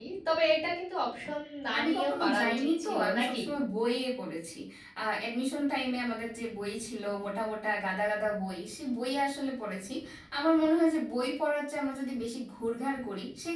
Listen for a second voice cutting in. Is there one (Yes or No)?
Yes